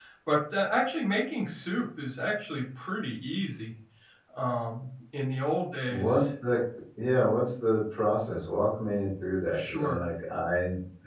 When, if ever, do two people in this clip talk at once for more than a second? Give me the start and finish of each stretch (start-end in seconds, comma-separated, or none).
none